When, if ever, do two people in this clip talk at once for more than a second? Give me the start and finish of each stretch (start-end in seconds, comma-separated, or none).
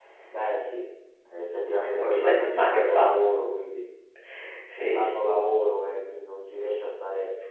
1.7-3.4